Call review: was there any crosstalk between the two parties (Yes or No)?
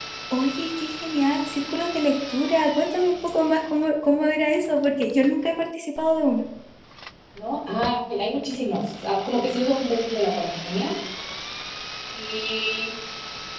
No